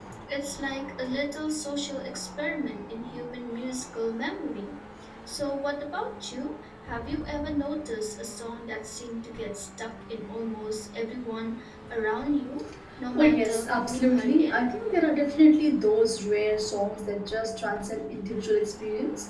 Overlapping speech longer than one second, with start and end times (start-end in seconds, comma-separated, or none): 13.2-14.6